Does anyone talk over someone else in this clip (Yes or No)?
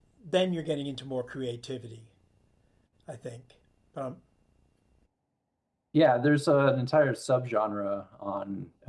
No